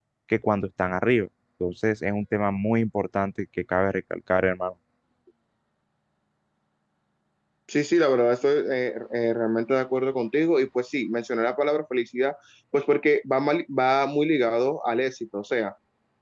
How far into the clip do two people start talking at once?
none

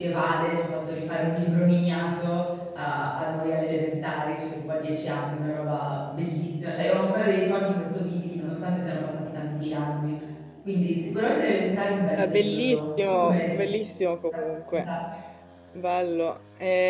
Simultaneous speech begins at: 12.2 s

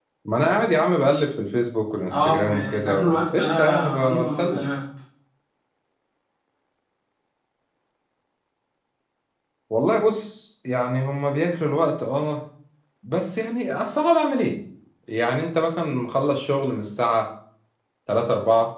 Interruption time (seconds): 2.1 s

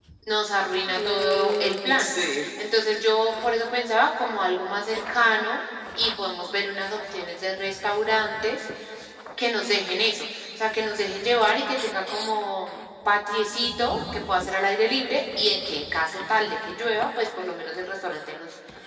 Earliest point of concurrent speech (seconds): 0.9 s

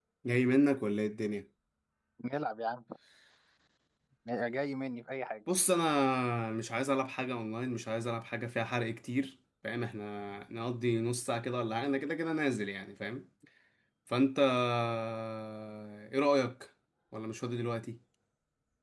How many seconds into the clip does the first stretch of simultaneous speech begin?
none

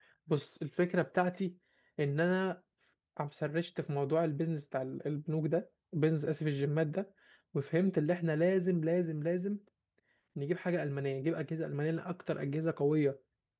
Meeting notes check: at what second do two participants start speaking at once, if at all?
none

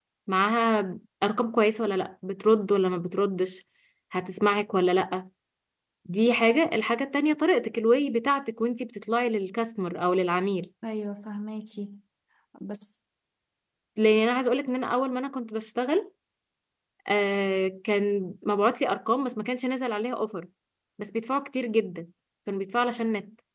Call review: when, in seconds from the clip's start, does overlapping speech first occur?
none

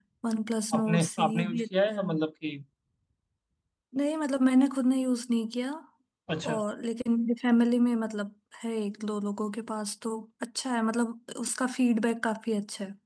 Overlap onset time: 0.7 s

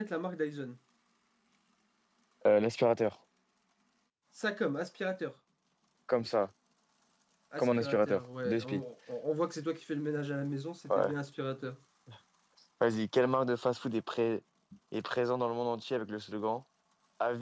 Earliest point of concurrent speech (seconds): 7.6 s

